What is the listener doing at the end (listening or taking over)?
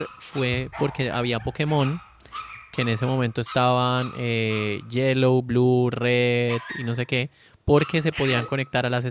listening